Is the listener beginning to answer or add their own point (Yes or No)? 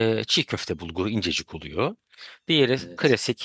No